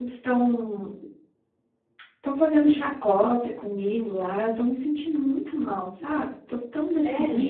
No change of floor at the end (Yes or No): Yes